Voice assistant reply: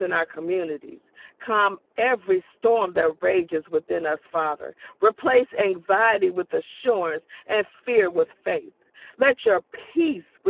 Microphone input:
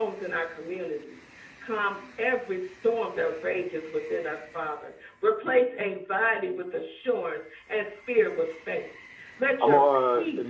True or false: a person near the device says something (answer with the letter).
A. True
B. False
A